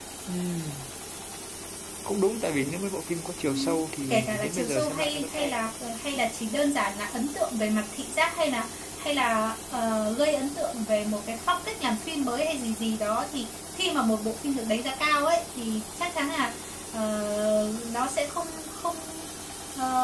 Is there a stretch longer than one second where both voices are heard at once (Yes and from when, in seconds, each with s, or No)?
Yes, from 3.5 s